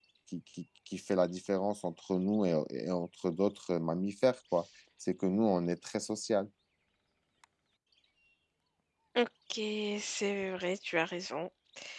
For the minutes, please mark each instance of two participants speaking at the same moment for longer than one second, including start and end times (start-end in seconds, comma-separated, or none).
none